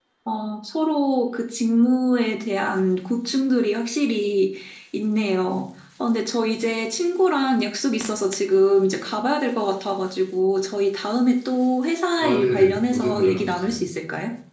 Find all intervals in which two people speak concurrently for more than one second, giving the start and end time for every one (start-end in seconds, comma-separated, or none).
12.2-13.8